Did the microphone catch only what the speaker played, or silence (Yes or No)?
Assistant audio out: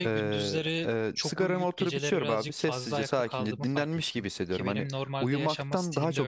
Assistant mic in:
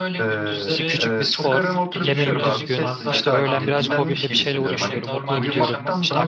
No